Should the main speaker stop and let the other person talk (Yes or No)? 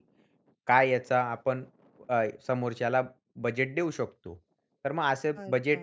No